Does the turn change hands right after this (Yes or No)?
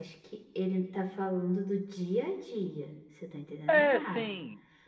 Yes